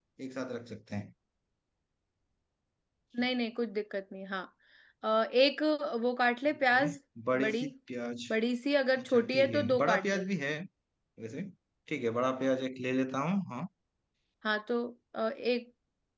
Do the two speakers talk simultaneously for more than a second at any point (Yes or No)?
Yes